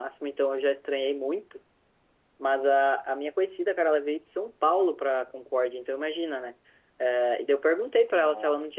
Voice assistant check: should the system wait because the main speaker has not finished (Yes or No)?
Yes